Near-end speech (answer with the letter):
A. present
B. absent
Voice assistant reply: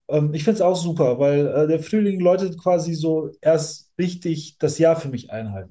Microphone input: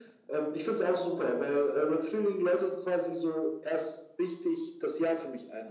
B